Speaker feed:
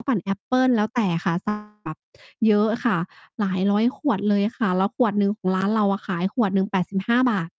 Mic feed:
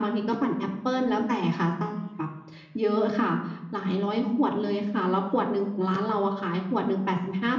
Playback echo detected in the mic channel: Yes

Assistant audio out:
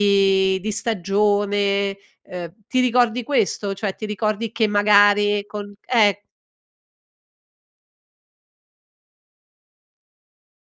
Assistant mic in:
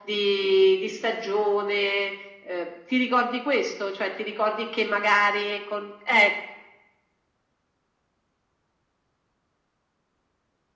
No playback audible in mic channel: No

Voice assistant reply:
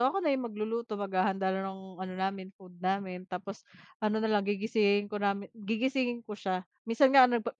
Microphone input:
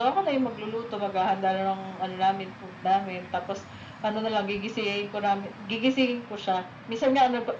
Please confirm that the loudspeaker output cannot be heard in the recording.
No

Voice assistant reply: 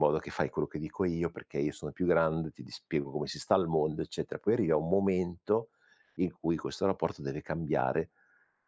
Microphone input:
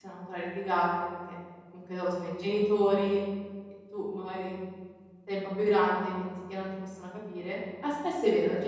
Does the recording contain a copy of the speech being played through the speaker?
No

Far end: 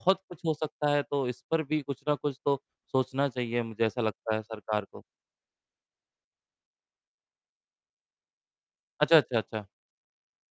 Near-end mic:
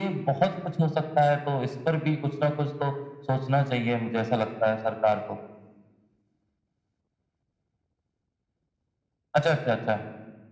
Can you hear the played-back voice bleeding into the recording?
Yes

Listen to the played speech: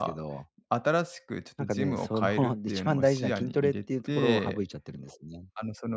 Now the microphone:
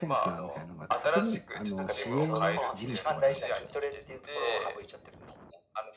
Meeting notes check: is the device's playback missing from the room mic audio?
No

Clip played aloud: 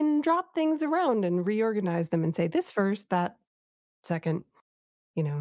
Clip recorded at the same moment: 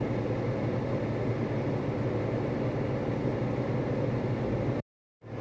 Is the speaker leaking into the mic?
No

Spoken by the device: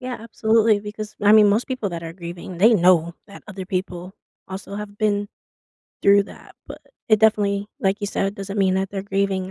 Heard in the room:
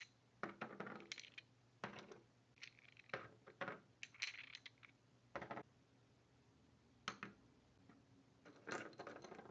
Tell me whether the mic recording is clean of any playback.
Yes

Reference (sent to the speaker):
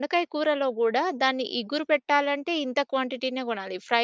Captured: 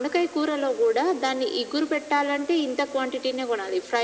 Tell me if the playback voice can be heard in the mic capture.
Yes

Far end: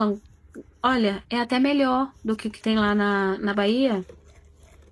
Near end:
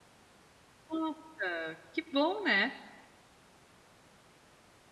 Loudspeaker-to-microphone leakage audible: No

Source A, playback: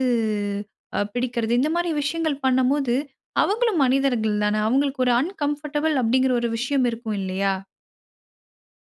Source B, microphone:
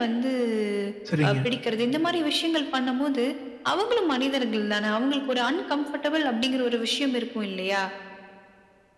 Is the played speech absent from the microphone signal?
No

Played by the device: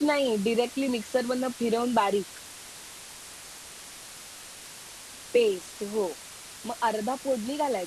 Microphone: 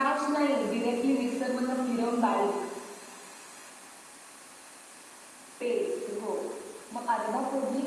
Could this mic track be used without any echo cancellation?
No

